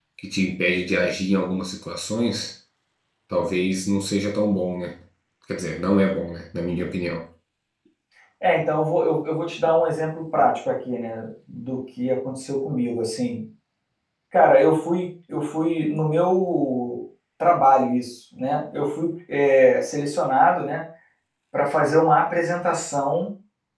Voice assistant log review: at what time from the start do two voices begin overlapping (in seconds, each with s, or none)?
none